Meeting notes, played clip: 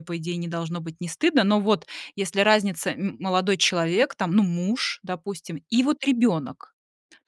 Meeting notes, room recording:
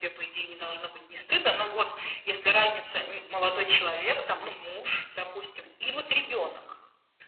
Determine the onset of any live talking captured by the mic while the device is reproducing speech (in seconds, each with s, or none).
none